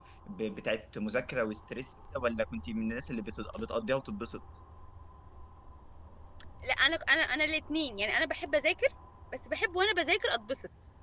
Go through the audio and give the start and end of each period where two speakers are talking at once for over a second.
none

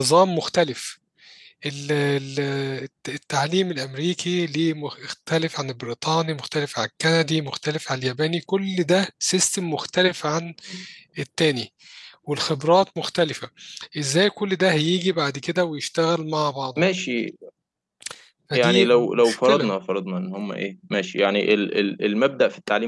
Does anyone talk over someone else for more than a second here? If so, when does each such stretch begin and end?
18.5-19.7

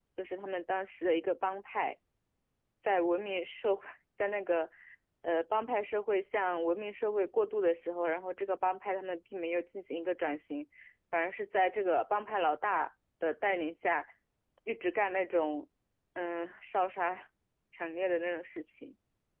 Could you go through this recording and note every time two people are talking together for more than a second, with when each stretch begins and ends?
none

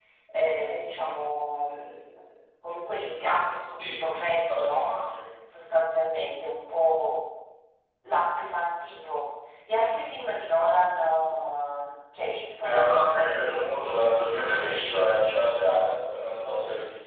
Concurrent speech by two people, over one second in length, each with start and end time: 12.6-15.1

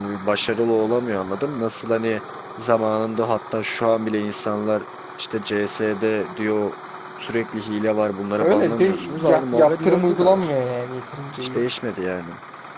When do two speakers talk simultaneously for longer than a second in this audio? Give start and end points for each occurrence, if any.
8.4-10.5

